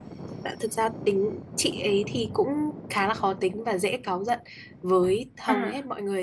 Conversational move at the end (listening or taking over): listening